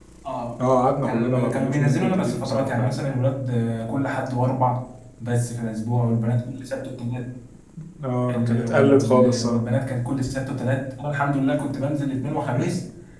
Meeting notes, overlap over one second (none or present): present